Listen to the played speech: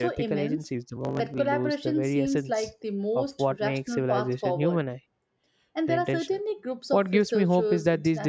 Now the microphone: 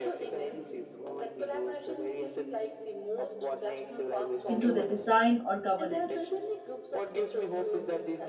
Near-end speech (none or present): present